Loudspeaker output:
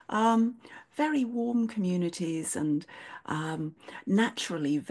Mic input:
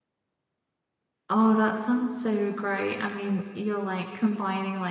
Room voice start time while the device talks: 1.3 s

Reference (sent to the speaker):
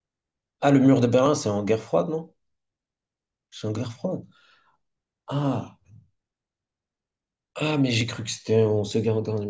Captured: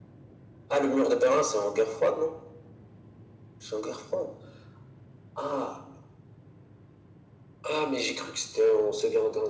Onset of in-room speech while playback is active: none

